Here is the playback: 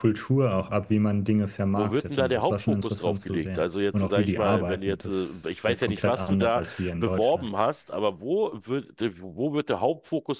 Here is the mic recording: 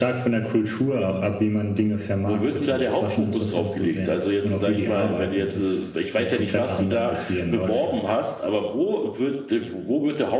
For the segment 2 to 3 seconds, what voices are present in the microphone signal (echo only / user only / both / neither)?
echo only